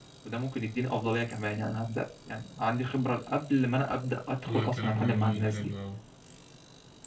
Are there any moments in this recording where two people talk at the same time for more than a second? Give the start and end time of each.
4.5-5.7

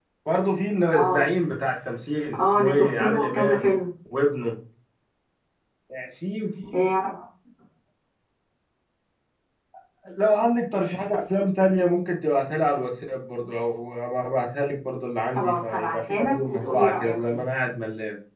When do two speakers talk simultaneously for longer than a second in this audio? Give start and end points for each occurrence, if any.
2.4-3.7, 15.3-17.4

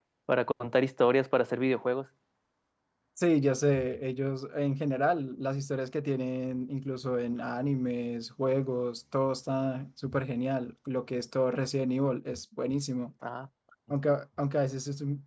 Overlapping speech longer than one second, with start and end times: none

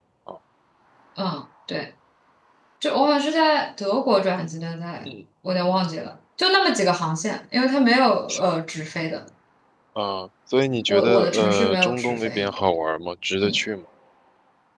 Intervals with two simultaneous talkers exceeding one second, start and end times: 10.9-12.5

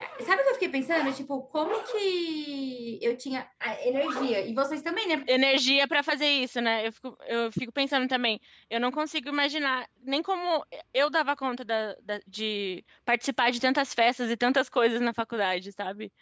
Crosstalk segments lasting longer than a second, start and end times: none

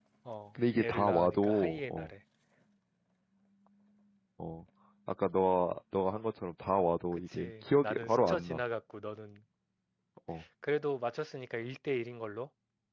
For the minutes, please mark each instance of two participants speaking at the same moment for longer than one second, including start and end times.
0.8-2.1, 7.1-8.6

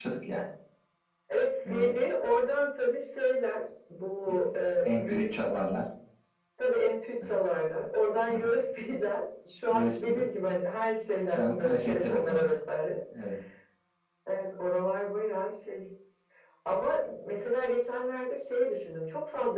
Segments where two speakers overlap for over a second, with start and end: 11.3-12.5

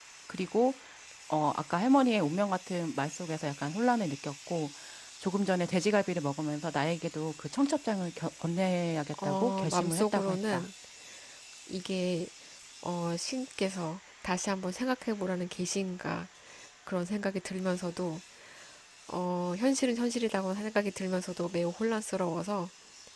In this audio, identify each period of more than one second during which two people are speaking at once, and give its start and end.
9.2-10.7

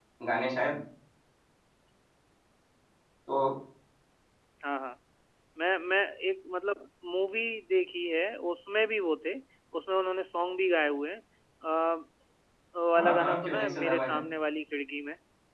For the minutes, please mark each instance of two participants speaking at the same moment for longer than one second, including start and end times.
13.0-14.2

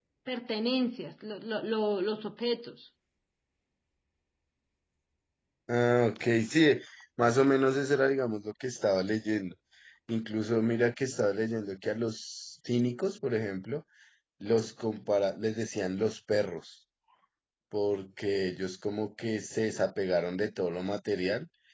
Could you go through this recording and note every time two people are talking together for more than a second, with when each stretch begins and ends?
none

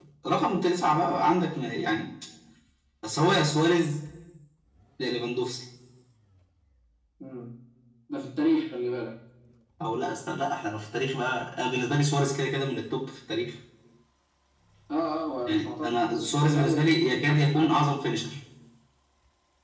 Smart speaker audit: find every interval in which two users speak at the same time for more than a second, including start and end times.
15.5-17.8

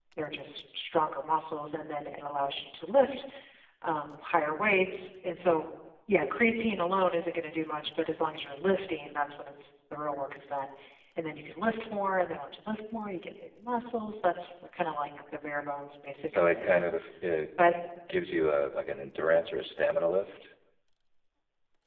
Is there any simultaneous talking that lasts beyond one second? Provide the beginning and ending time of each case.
none

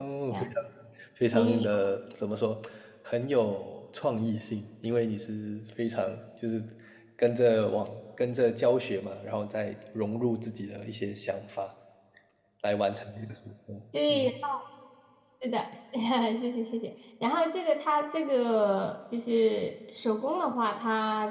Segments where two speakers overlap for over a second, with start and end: none

